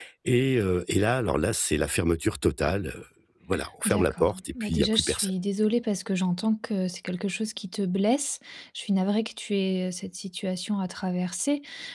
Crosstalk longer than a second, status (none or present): present